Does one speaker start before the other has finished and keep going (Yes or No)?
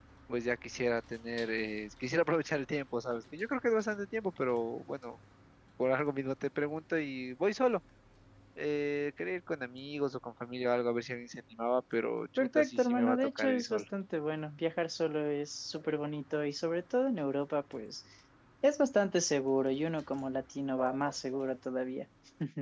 Yes